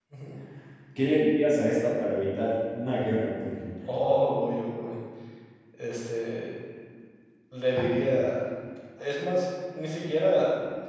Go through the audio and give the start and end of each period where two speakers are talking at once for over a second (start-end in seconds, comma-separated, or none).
none